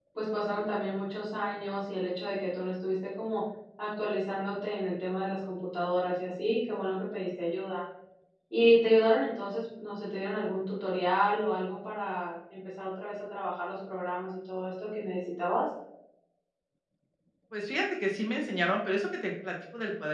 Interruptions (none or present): none